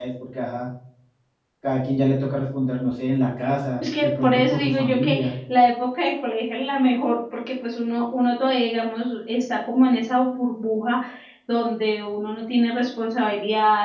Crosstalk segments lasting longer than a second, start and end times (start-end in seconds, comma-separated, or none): 3.8-5.3